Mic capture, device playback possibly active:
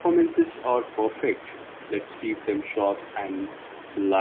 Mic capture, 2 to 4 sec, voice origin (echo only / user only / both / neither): user only